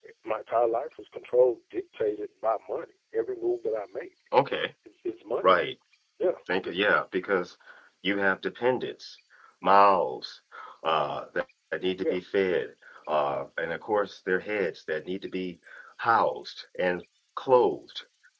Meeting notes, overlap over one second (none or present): none